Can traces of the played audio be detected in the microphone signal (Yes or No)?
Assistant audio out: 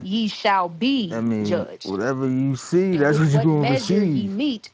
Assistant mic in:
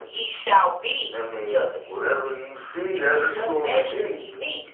Yes